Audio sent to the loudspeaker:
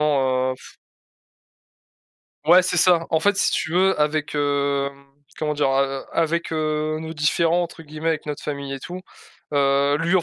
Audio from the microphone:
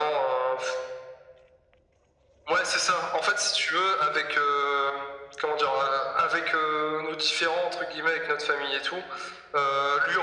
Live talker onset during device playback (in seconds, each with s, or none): none